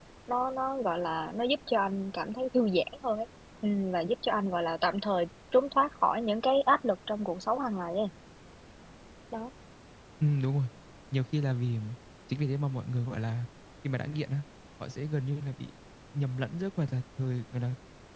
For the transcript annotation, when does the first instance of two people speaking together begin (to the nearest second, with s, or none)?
none